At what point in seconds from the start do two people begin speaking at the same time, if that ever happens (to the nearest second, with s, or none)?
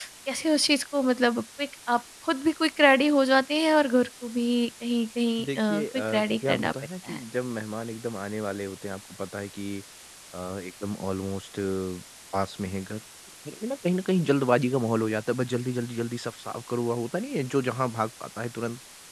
5 s